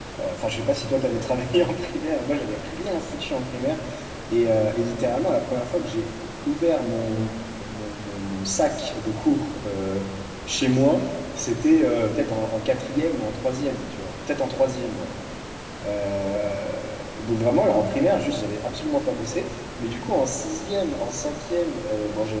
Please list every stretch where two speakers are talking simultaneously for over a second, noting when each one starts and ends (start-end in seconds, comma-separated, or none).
none